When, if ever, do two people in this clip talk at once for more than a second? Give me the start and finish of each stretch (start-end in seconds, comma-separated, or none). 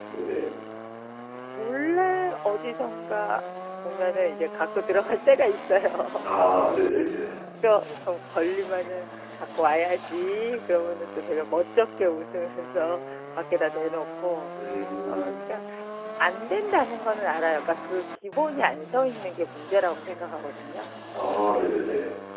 none